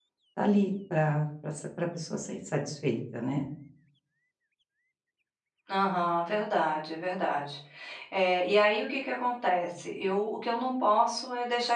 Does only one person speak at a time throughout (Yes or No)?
Yes